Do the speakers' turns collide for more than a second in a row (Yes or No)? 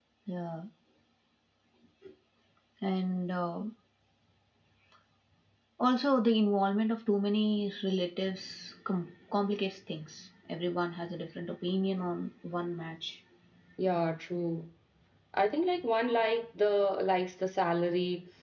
No